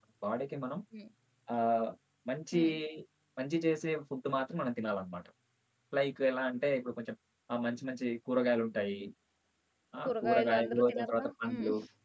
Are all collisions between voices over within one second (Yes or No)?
No